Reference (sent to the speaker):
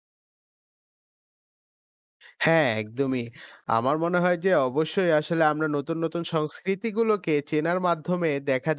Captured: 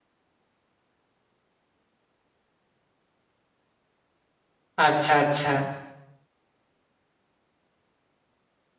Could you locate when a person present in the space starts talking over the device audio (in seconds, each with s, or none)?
4.9 s